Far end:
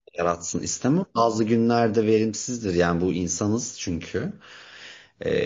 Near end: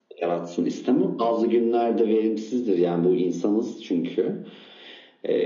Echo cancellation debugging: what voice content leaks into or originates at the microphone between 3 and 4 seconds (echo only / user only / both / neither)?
echo only